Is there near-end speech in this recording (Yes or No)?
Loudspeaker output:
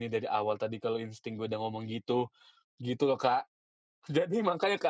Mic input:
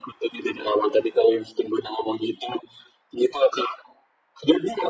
No